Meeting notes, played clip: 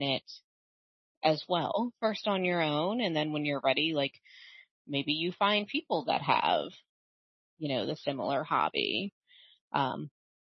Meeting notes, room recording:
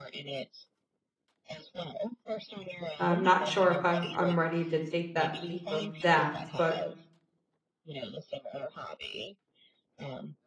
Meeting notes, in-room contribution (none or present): present